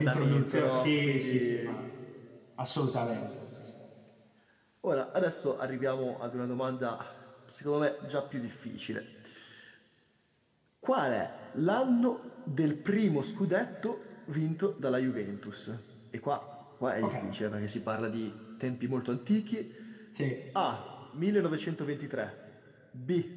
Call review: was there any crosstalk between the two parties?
Yes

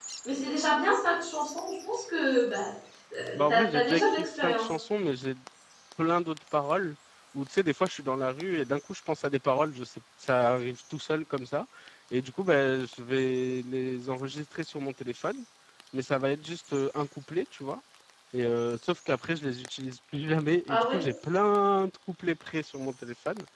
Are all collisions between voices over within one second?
No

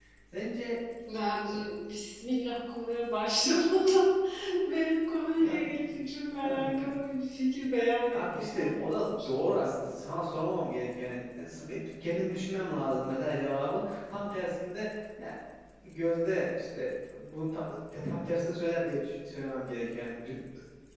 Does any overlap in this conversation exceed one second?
Yes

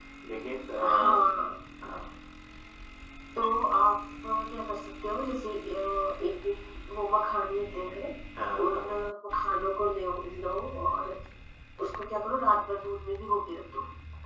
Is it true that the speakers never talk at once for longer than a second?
Yes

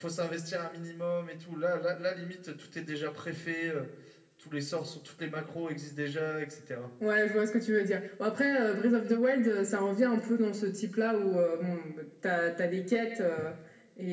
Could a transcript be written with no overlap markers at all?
Yes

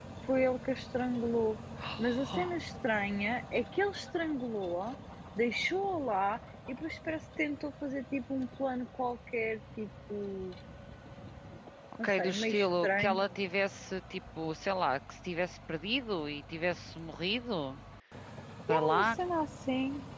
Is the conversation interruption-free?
No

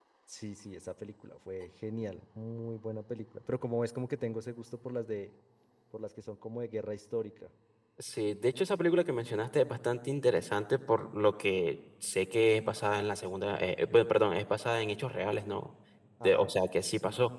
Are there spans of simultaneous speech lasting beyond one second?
No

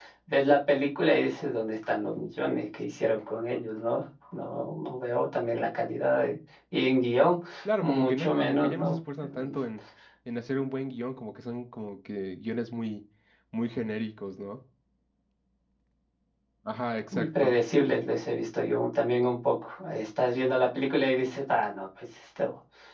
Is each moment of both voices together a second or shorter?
No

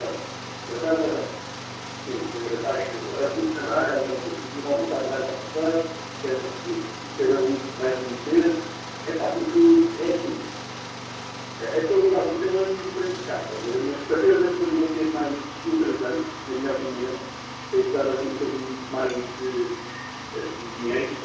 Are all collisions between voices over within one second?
No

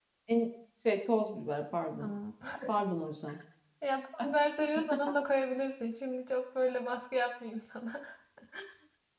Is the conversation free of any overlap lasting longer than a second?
Yes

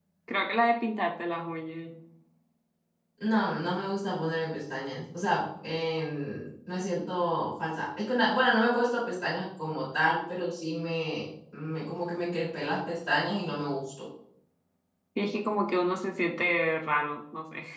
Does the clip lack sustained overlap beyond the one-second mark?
Yes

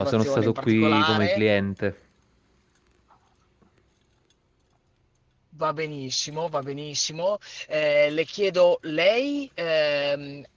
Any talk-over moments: Yes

